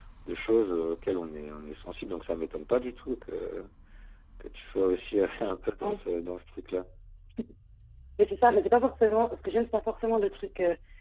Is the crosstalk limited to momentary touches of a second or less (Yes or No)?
Yes